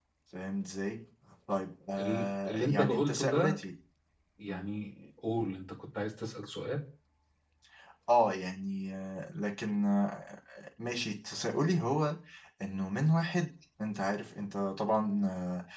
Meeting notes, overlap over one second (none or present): present